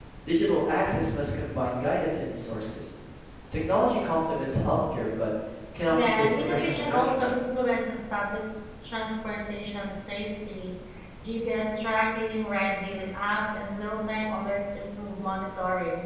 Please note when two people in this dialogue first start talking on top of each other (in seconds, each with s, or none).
5.9 s